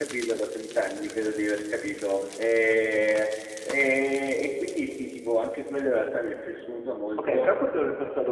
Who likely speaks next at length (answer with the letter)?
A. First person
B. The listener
B